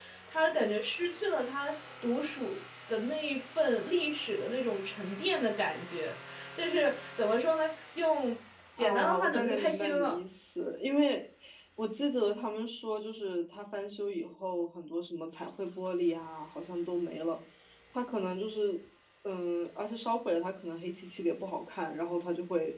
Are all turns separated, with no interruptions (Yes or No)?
No